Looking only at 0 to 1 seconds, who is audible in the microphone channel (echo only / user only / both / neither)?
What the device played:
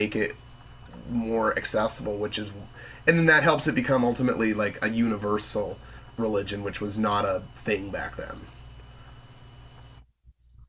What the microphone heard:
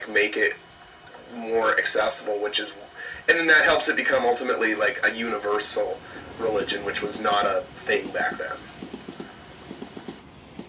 echo only